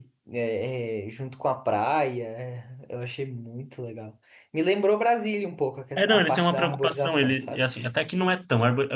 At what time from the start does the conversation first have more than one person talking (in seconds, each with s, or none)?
6.0 s